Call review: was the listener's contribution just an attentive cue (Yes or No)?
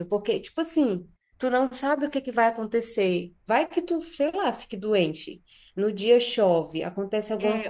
No